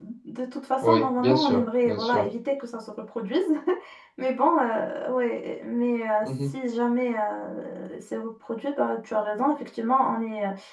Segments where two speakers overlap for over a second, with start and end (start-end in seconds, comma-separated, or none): 0.8-2.2